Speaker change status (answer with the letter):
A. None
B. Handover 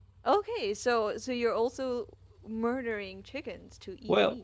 B